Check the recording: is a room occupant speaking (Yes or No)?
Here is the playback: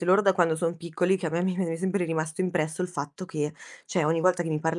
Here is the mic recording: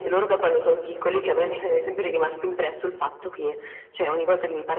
No